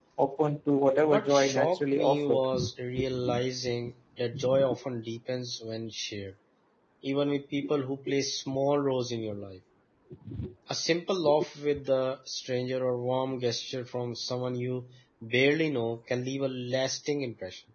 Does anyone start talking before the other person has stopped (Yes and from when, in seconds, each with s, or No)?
Yes, from 1.0 s